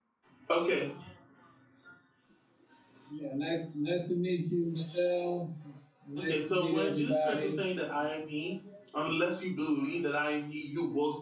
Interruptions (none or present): present